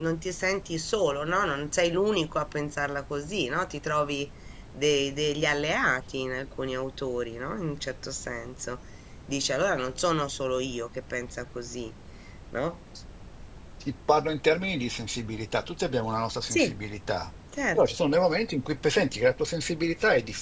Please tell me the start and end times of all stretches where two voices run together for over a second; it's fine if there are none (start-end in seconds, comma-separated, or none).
none